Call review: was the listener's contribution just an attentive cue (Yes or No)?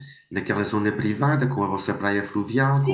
No